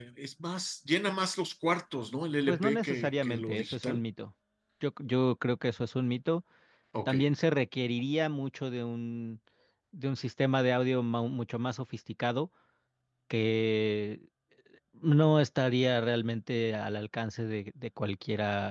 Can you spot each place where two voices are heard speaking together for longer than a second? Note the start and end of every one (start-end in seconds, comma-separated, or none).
2.5-4.0